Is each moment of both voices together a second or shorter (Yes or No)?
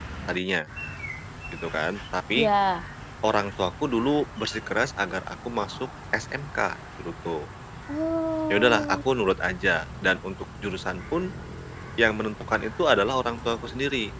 Yes